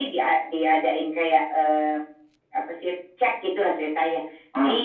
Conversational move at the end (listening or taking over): listening